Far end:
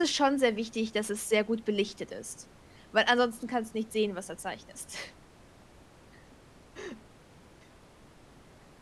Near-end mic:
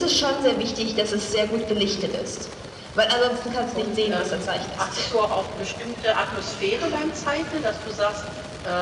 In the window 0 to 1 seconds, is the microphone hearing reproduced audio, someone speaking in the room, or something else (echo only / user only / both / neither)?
echo only